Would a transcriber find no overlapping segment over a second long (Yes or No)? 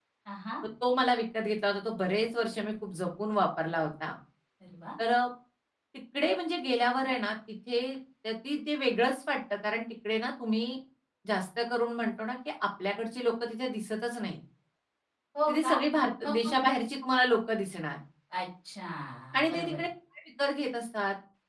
Yes